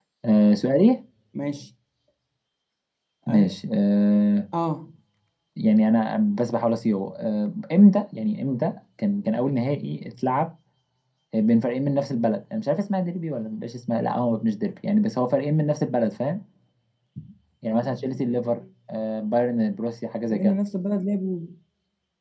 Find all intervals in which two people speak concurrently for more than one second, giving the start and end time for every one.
none

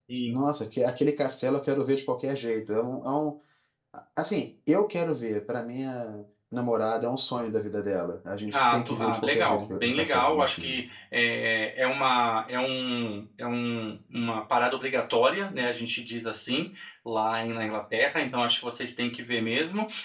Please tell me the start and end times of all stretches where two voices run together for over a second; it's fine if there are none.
8.5-10.8

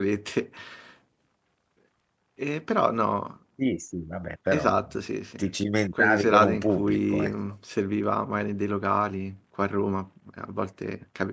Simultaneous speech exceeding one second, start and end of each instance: 5.9-7.3

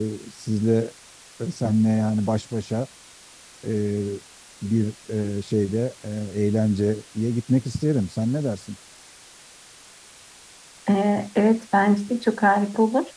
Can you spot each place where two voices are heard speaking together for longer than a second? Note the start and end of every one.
none

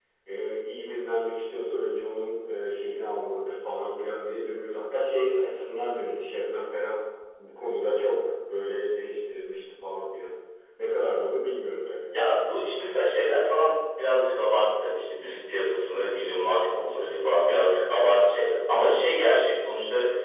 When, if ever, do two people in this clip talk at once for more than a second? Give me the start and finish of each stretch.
none

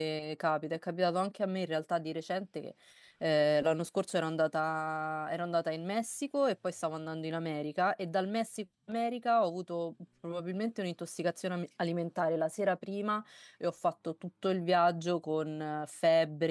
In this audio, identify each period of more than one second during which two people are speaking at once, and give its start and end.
none

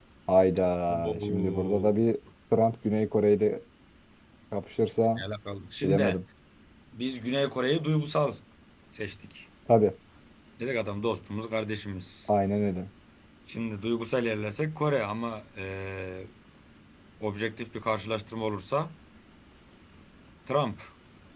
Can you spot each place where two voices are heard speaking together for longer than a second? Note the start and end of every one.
0.9-2.1

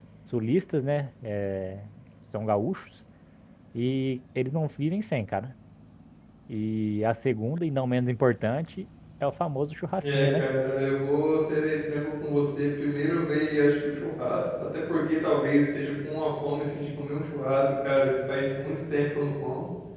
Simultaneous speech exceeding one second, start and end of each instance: none

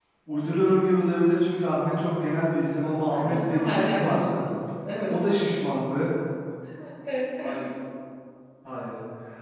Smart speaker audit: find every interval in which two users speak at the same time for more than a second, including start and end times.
3.1-4.4

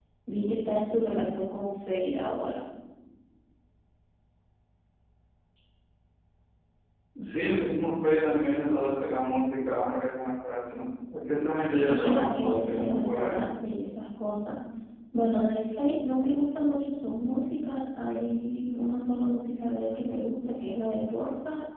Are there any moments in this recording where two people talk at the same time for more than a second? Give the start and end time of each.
11.7-13.5

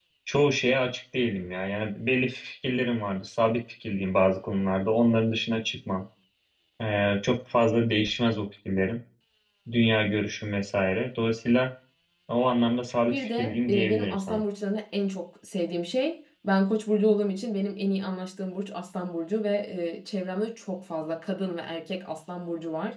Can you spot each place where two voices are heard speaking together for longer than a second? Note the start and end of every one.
13.1-14.4

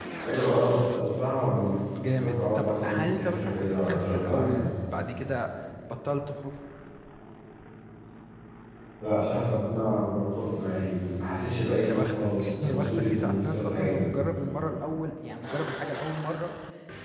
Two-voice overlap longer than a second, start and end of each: 2.2-4.7, 11.8-14.1

